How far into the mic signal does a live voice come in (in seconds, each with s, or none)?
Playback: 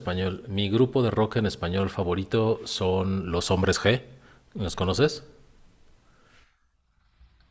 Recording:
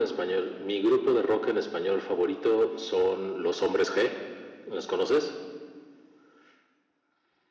none